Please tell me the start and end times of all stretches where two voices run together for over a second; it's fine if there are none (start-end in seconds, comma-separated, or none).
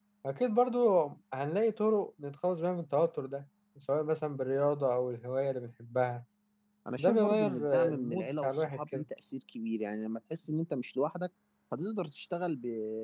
7.0-9.0